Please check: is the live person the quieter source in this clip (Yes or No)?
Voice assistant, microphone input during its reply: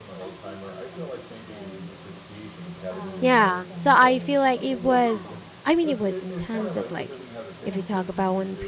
No